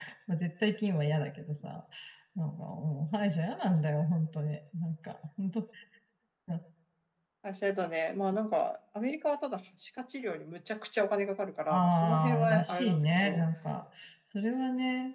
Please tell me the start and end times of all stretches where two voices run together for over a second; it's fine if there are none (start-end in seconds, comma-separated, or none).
11.7-13.4